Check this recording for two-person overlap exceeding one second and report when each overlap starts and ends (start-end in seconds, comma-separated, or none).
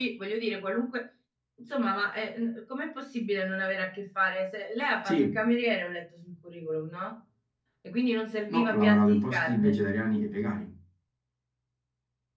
8.5-9.8